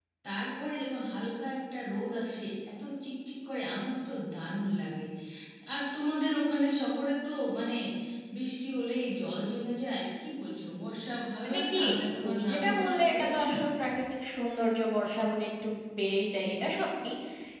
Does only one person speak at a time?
No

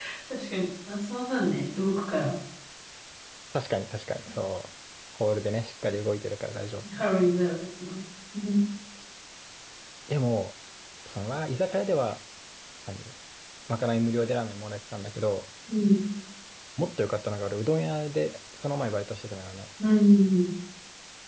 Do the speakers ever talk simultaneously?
No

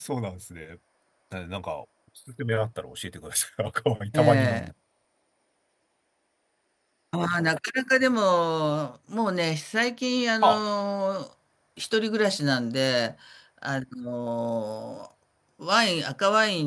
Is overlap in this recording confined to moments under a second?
Yes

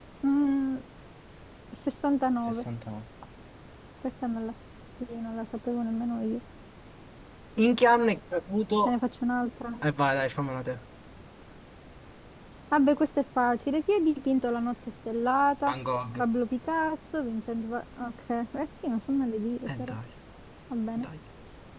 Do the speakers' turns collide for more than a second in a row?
No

